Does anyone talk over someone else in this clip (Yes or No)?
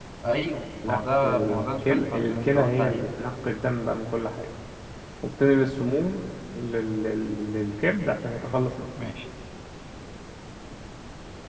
Yes